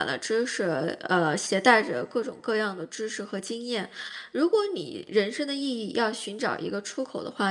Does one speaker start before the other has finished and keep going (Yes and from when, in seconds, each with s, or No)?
No